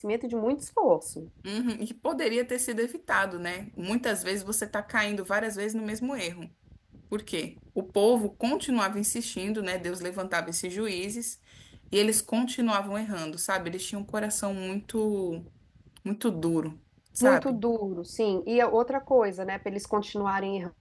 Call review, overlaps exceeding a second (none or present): none